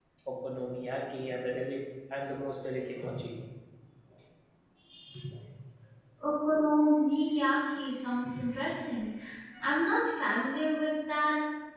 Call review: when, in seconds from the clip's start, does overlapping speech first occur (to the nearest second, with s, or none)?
none